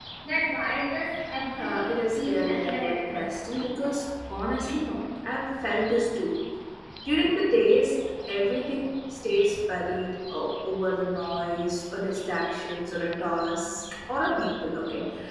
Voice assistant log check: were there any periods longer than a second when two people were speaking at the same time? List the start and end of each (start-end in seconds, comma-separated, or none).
1.6-3.3